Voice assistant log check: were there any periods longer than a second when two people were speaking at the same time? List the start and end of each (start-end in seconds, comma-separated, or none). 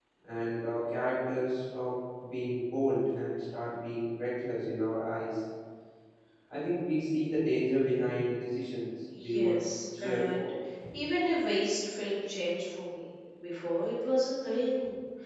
9.2-10.5